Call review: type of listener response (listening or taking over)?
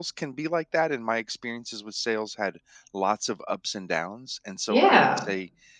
listening